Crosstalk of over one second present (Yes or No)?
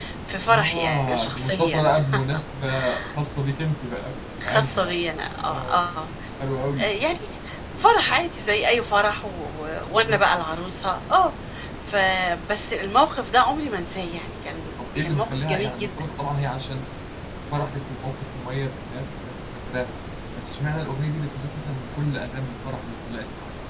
Yes